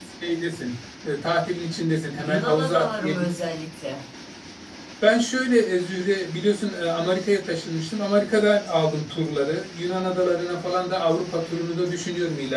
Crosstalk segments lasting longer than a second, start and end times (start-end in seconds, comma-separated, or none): 2.1-3.4